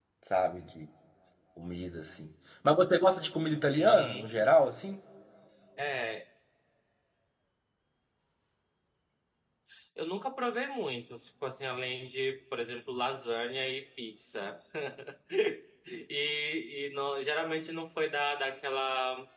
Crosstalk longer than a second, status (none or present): none